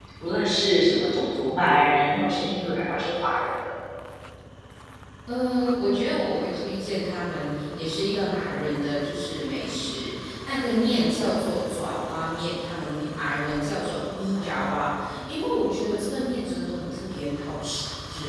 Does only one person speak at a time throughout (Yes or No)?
Yes